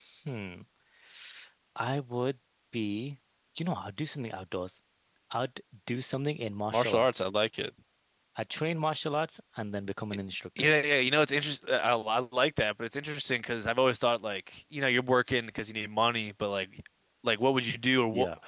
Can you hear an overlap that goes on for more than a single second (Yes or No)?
No